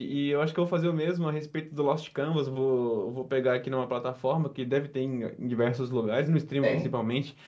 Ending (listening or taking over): listening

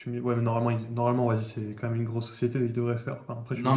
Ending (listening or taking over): taking over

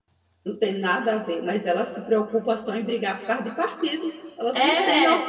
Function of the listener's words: taking over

